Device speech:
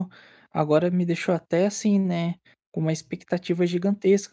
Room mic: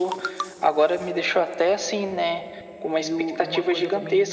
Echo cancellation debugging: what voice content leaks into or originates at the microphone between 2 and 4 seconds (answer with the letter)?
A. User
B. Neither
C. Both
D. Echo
C